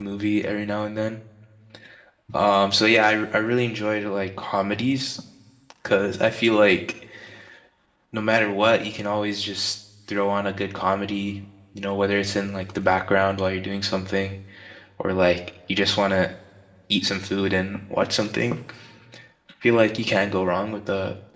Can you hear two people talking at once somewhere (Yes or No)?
No